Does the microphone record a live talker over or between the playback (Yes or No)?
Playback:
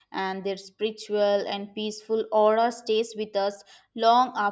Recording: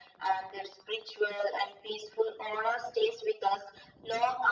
No